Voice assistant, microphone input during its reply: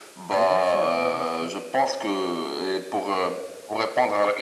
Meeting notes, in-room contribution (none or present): present